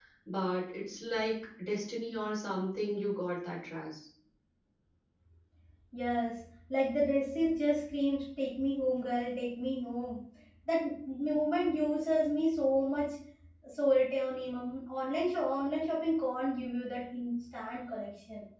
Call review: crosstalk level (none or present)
none